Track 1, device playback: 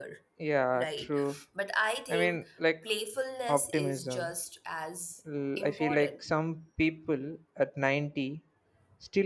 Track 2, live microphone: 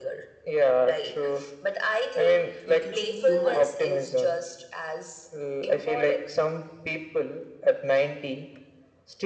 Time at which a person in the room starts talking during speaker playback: 2.6 s

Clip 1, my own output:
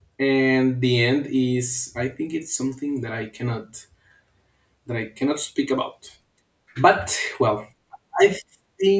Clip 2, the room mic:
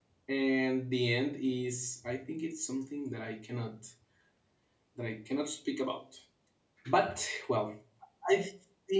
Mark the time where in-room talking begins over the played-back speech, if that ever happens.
none

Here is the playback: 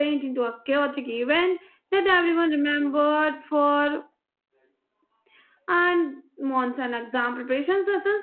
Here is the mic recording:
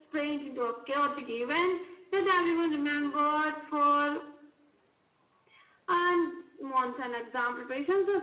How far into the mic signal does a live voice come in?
none

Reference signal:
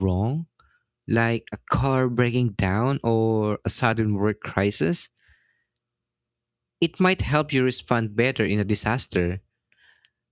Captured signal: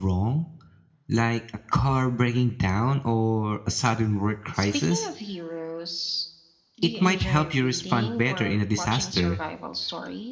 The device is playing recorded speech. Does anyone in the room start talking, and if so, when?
4.5 s

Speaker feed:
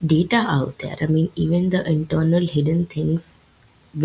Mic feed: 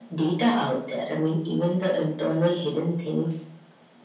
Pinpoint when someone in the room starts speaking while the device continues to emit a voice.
none

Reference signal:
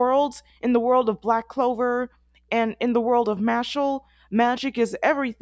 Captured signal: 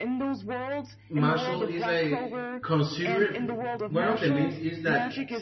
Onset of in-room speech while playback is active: 1.1 s

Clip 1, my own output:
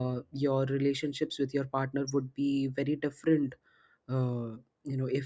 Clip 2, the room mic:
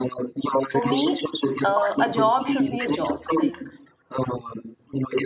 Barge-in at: 0.6 s

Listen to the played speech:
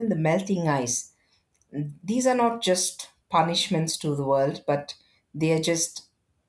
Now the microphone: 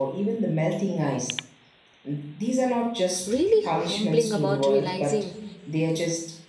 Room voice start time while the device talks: 3.2 s

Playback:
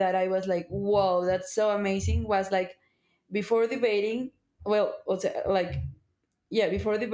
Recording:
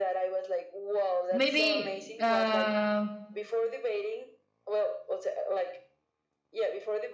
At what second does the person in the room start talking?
1.3 s

